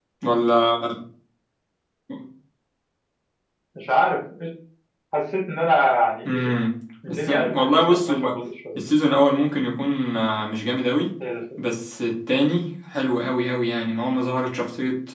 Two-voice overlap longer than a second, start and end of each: 7.1-8.3

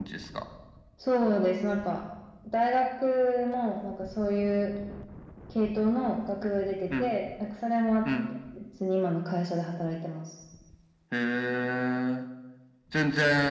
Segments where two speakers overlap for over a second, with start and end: none

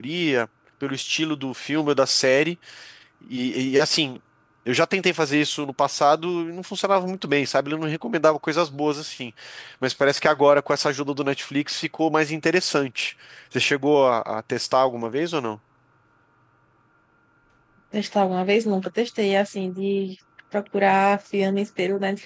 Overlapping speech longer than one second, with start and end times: none

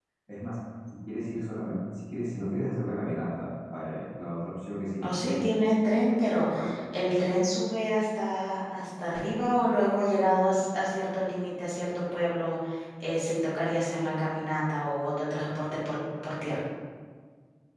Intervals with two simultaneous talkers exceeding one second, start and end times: none

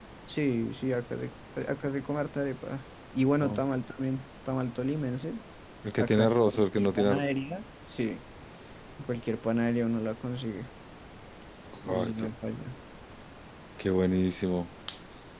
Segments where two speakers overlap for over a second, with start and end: 6.0-7.2

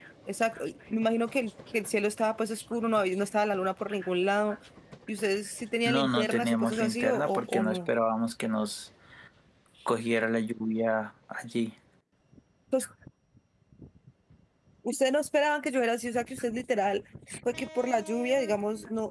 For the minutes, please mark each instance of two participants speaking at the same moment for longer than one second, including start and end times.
5.8-7.9

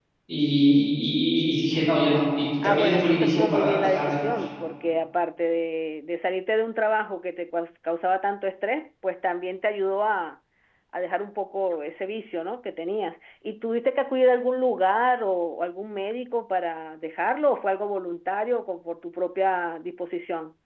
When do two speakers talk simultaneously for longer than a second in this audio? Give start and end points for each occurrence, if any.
2.6-4.4

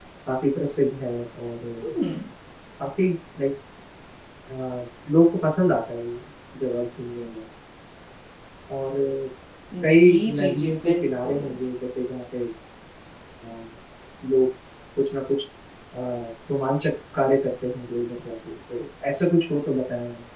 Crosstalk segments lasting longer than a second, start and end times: 9.9-11.4

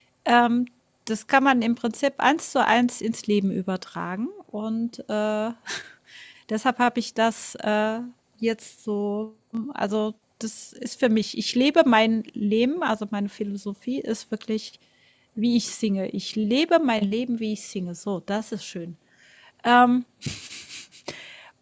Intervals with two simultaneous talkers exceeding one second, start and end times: none

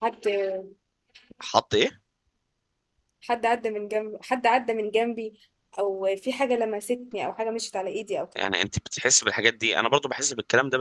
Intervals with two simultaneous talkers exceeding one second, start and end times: none

